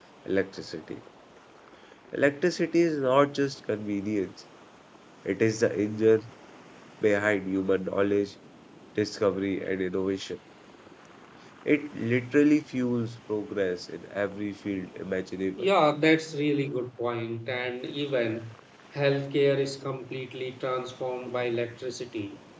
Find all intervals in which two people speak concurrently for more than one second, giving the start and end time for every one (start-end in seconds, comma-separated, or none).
none